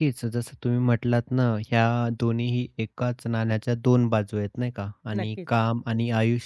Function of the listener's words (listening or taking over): listening